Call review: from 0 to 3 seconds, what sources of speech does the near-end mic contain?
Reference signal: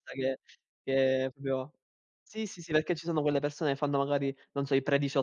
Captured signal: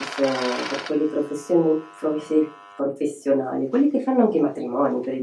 user only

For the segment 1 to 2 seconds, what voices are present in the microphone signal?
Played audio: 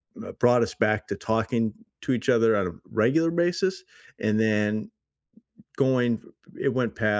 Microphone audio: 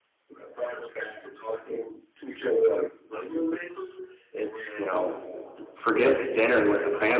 echo only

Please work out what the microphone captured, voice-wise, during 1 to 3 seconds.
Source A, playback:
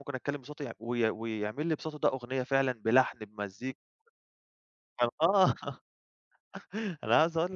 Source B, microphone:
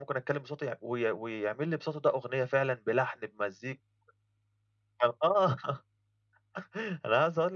echo only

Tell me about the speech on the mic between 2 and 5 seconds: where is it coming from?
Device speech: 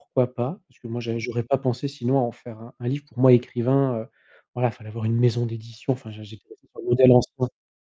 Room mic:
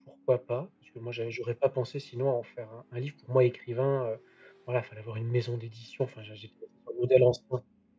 echo only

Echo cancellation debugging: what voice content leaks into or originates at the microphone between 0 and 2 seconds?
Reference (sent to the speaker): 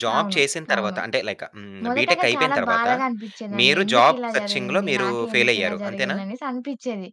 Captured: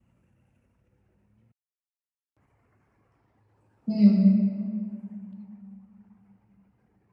neither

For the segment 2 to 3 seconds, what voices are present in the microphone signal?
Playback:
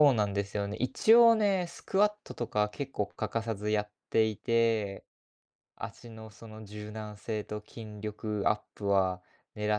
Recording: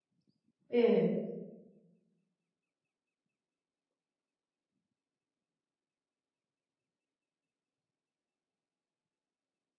neither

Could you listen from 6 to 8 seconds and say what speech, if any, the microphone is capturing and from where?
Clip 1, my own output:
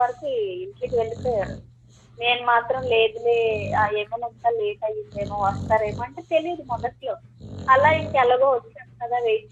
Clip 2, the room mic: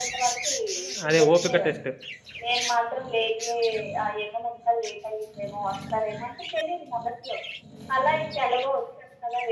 echo only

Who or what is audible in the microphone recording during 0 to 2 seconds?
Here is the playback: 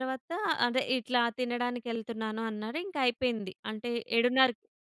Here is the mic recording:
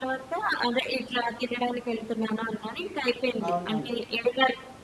echo only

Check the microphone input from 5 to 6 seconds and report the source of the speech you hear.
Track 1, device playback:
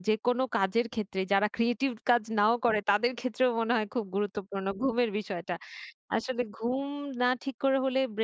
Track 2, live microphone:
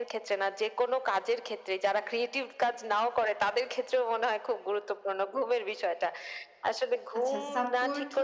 echo only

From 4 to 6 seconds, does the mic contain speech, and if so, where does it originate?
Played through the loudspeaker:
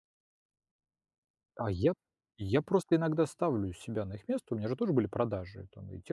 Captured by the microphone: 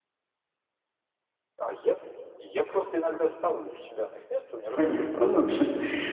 both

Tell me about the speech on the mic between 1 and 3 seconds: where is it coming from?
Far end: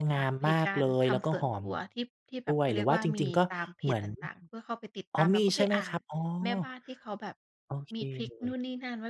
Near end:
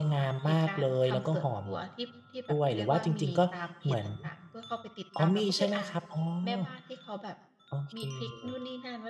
echo only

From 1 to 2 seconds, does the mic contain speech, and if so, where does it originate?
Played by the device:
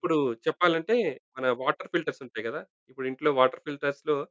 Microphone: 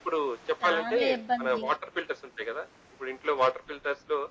both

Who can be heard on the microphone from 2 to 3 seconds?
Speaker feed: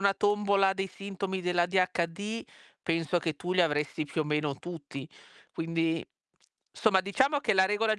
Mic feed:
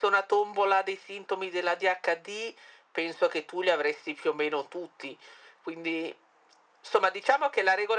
echo only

